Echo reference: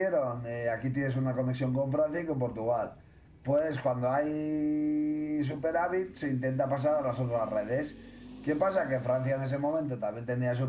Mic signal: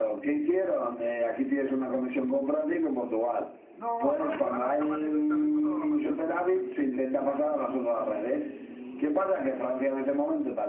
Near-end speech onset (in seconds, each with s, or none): 3.8 s